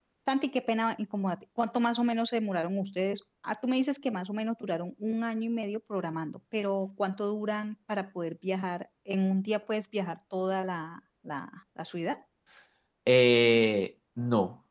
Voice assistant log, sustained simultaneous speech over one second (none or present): none